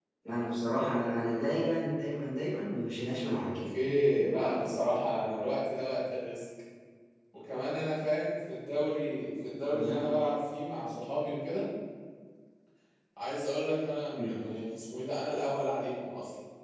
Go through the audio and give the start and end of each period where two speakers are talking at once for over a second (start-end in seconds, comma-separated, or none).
none